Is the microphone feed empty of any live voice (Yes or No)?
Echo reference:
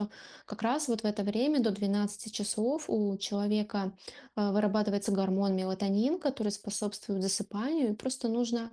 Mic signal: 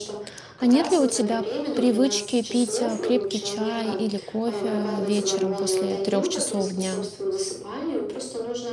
No